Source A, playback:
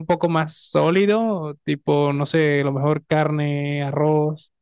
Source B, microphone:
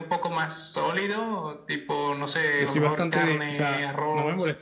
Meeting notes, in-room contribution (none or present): present